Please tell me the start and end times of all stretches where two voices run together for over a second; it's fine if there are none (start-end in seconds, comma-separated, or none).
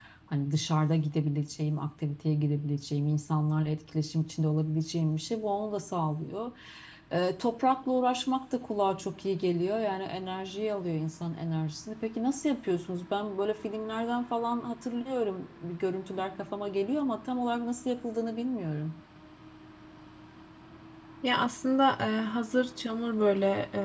none